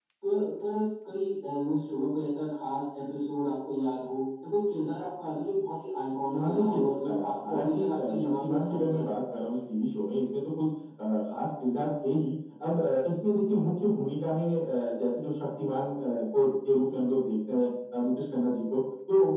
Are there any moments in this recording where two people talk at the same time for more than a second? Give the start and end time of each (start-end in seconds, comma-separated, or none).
6.3-9.1